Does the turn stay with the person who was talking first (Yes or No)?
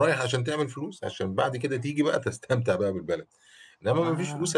Yes